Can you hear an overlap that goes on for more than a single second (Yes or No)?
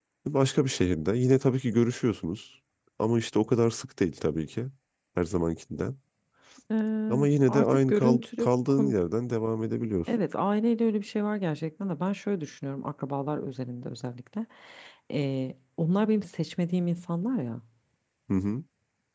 Yes